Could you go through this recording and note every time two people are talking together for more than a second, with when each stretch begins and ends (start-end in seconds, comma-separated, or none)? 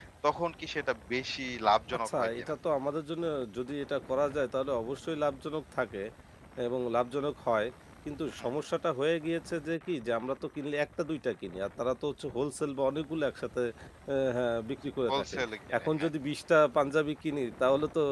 none